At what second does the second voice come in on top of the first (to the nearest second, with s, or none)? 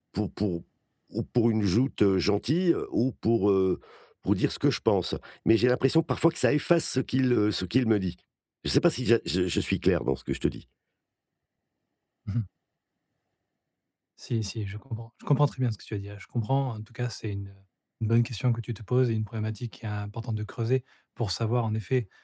none